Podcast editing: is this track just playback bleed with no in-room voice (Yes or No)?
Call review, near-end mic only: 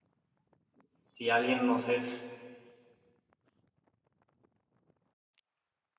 No